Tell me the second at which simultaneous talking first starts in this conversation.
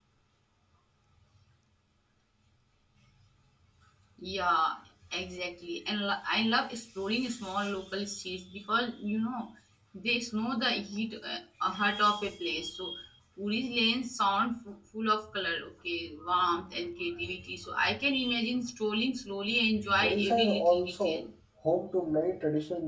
20 s

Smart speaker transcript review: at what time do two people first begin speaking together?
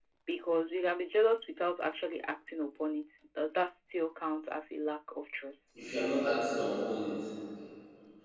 none

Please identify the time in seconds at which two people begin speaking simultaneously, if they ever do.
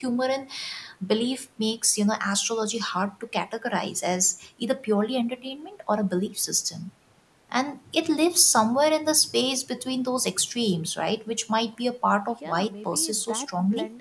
12 s

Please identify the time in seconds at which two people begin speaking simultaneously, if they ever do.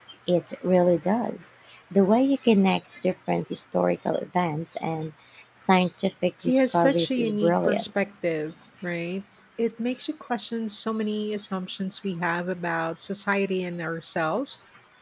6 s

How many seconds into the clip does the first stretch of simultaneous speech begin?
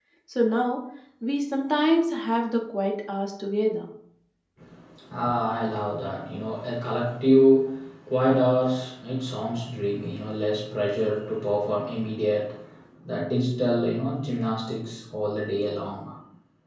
none

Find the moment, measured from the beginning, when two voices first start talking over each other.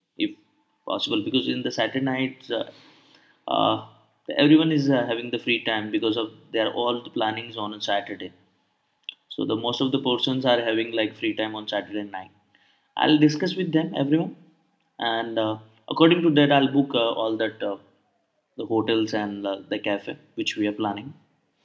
none

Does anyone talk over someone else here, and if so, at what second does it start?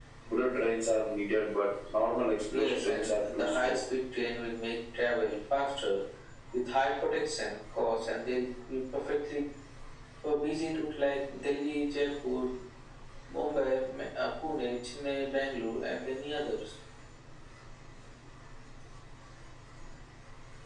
2 s

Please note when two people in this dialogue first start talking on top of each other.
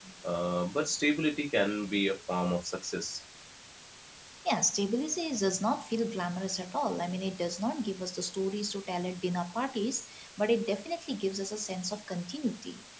none

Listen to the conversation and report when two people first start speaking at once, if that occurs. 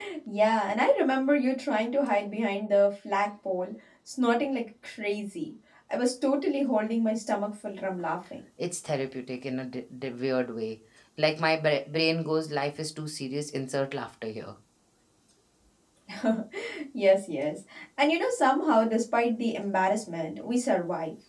none

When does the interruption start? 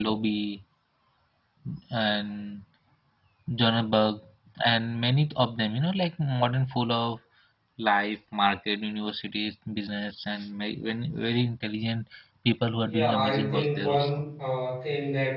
13 s

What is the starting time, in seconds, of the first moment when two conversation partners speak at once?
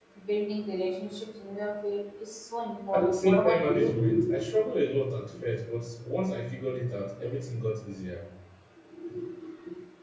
3 s

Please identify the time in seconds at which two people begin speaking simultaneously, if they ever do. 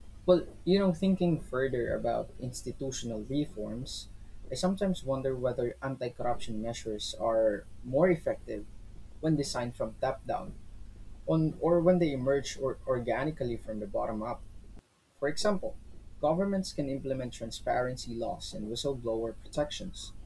none

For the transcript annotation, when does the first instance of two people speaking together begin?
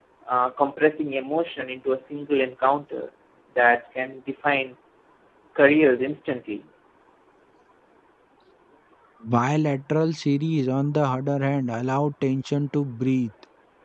none

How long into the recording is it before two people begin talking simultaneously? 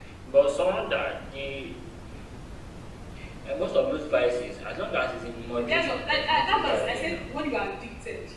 6 s

